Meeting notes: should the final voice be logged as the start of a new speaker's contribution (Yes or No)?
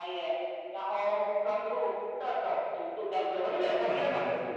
Yes